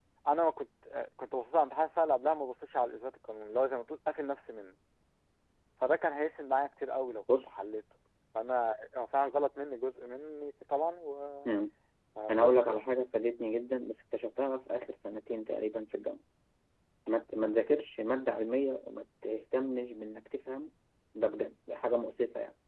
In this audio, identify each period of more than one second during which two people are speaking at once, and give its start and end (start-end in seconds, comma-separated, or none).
none